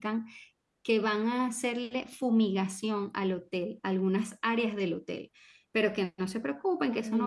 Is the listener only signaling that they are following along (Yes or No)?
Yes